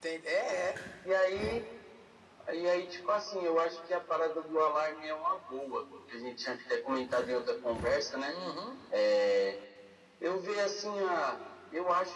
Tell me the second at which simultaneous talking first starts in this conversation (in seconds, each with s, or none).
none